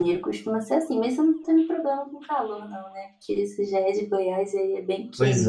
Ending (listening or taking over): taking over